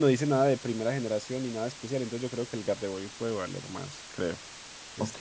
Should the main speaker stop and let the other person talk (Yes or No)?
Yes